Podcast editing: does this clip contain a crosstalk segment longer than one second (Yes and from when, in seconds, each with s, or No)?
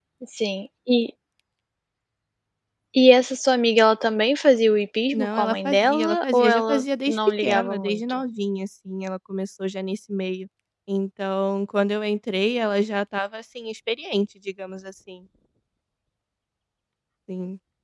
Yes, from 5.1 s